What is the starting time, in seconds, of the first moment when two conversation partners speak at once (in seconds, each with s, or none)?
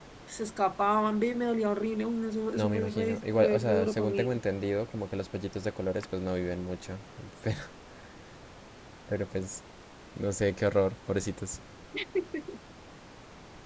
2.5 s